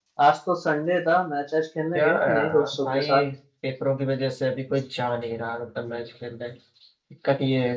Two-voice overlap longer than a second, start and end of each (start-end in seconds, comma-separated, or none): 1.9-3.2